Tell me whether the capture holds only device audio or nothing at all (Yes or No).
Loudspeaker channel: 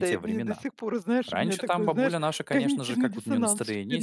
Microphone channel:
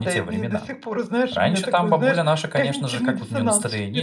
Yes